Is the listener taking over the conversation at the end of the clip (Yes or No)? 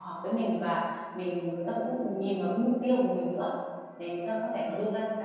No